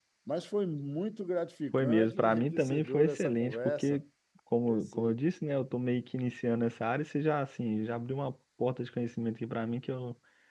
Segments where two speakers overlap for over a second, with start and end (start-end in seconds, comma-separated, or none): 1.7-4.0